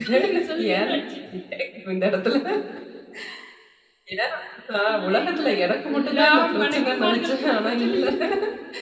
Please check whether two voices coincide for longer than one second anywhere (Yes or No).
Yes